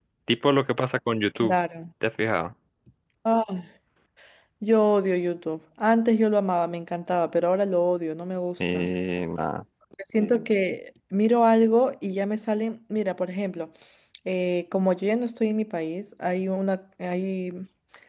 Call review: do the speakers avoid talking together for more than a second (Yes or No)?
Yes